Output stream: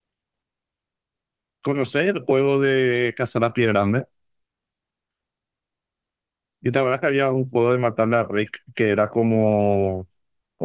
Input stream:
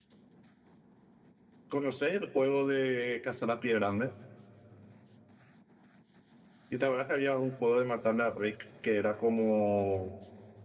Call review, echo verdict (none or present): present